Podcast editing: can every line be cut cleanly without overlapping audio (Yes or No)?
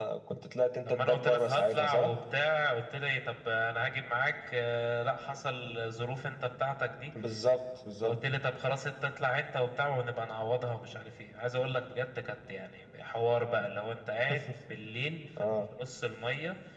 No